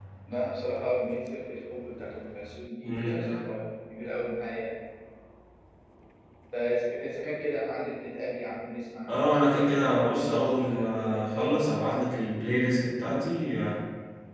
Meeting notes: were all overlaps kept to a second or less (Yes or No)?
No